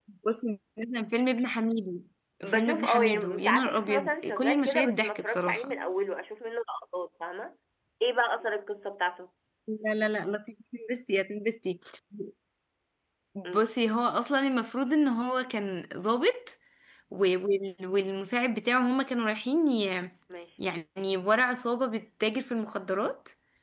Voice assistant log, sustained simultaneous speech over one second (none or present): present